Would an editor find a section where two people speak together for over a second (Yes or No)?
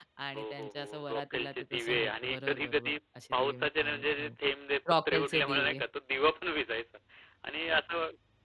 Yes